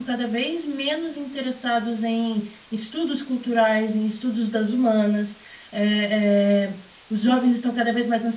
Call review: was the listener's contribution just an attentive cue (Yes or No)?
Yes